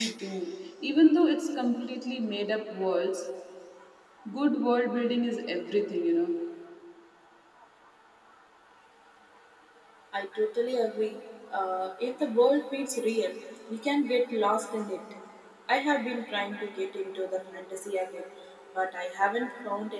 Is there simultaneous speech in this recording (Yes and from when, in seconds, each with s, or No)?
No